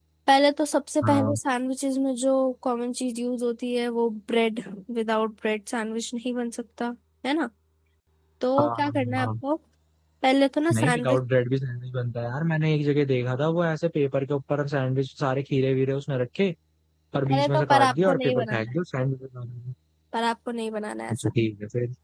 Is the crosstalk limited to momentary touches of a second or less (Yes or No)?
No